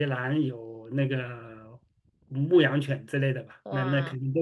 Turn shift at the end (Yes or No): No